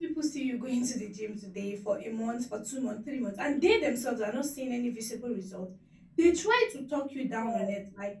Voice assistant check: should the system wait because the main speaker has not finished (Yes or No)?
Yes